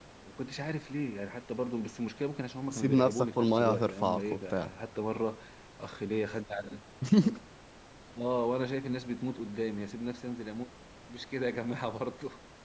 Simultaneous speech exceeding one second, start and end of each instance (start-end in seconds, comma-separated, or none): 2.7-4.7